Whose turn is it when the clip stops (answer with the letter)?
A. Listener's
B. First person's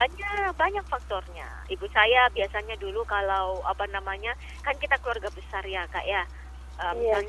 B